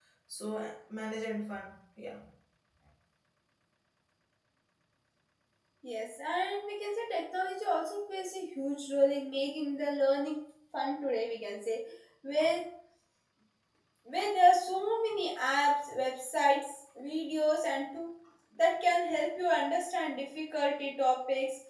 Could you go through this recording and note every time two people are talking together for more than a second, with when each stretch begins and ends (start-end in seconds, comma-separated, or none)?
none